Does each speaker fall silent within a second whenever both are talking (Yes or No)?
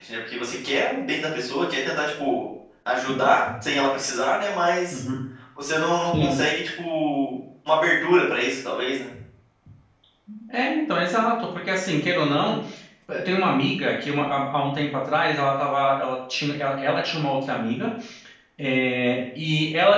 Yes